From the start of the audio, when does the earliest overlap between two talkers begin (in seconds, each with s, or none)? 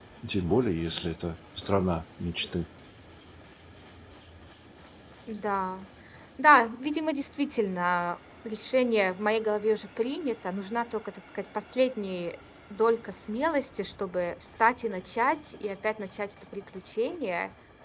none